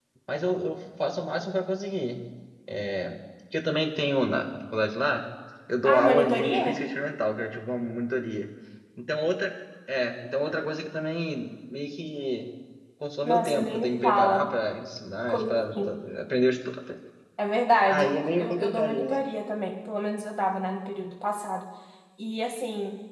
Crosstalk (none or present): present